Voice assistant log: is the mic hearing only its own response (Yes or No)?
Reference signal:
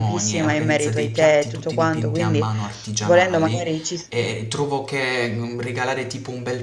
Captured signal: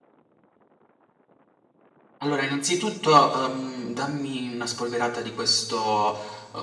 No